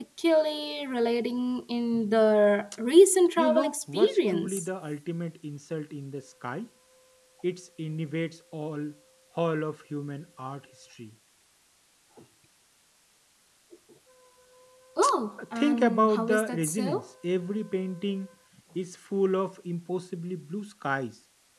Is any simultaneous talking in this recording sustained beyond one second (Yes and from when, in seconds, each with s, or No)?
Yes, from 3.4 s